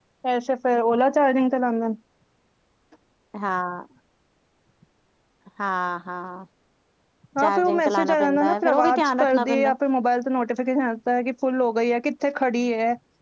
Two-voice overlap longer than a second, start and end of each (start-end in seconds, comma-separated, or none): 7.4-9.7